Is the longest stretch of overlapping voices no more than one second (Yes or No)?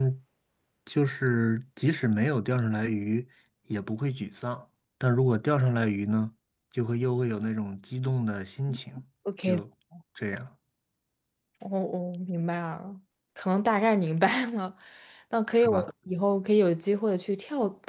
Yes